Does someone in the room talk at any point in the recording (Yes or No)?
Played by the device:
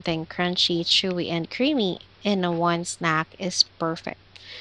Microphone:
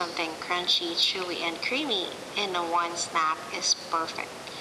No